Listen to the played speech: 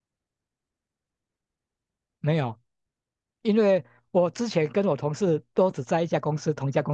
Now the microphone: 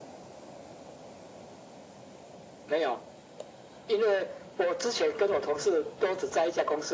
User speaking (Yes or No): No